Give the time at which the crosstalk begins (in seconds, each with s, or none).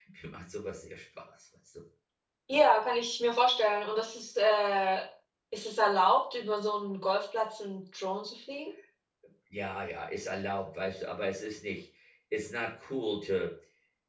none